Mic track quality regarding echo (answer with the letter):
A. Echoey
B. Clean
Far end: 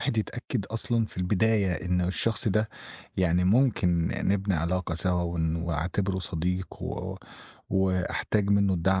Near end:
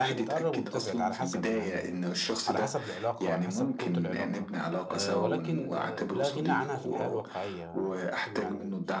A